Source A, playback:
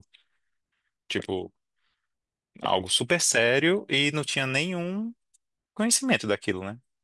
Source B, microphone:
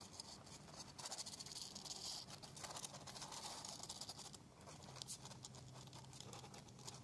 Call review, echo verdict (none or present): none